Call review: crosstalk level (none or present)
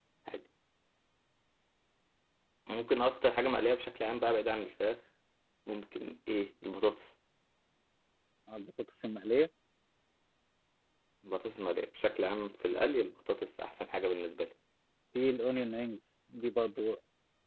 none